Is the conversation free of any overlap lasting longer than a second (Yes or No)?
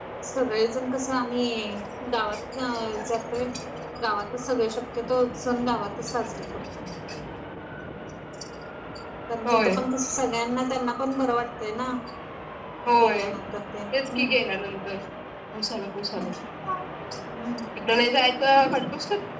Yes